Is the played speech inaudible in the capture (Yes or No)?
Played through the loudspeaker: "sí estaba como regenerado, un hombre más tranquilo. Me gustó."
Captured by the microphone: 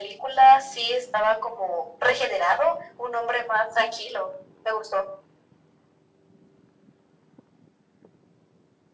No